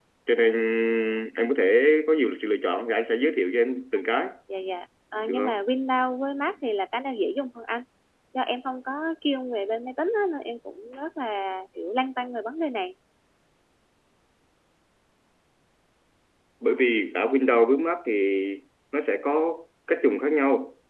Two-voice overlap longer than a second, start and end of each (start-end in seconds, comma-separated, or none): none